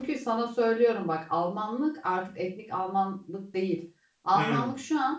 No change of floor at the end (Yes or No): Yes